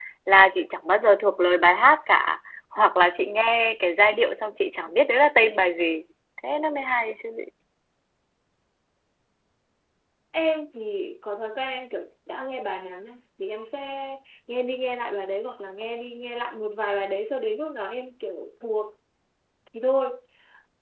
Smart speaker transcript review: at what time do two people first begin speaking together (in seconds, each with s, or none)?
none